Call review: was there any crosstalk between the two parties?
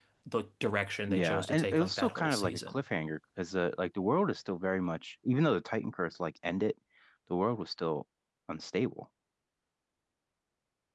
Yes, from 1.1 s

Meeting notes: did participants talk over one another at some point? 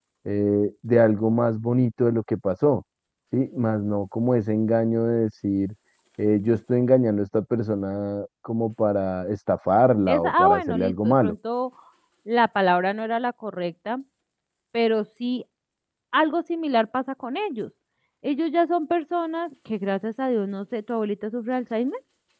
Yes, from 10.1 s

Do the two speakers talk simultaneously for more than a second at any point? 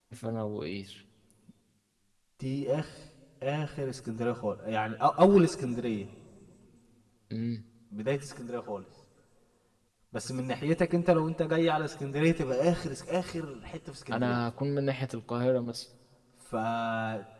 No

